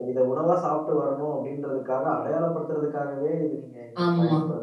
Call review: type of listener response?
taking over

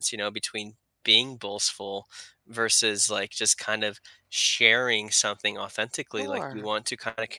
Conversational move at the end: listening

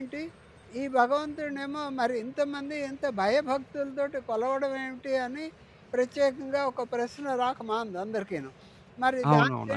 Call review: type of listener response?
taking over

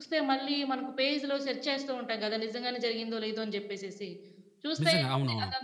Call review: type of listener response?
listening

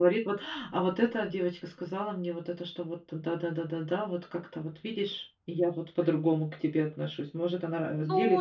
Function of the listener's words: taking over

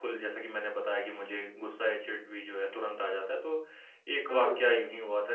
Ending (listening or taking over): listening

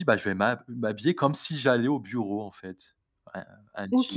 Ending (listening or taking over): taking over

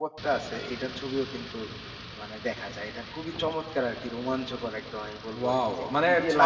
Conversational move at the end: taking over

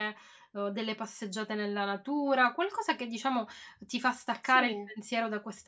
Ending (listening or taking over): listening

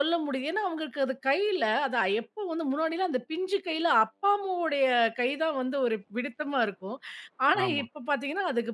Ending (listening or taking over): listening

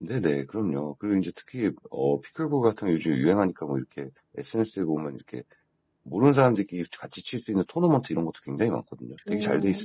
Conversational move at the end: taking over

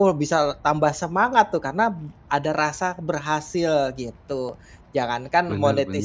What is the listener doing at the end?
listening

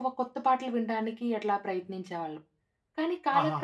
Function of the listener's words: listening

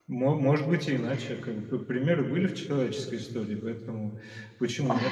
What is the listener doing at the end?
listening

